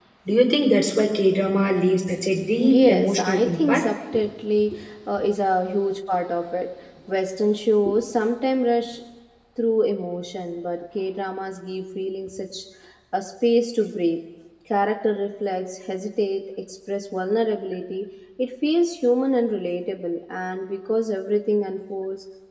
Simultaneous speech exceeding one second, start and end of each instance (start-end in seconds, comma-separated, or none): 2.6-3.9